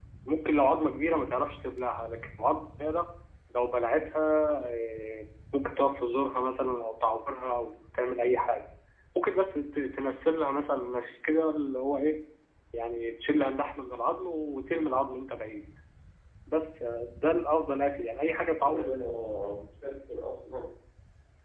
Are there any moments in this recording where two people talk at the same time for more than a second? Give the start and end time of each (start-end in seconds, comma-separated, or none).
none